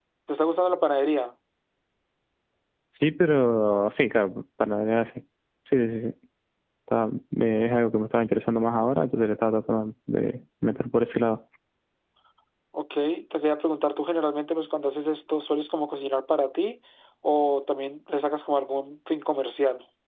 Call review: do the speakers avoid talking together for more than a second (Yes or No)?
Yes